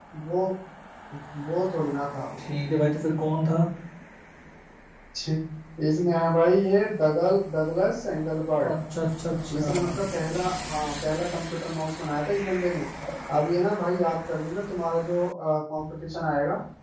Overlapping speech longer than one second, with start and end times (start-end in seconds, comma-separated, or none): none